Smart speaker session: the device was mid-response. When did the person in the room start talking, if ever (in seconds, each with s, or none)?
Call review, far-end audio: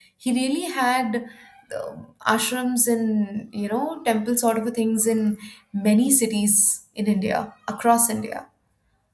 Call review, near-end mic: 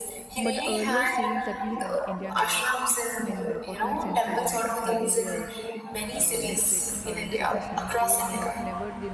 0.4 s